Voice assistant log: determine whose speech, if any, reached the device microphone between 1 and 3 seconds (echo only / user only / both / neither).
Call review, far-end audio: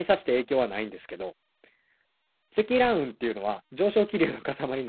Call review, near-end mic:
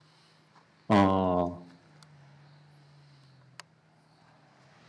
user only